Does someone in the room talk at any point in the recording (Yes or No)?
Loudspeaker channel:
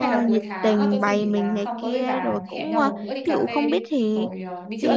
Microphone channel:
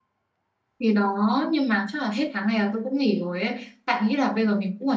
Yes